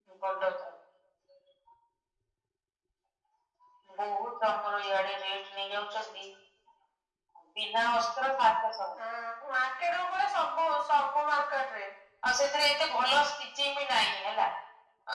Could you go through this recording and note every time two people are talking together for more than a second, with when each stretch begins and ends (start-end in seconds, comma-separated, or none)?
none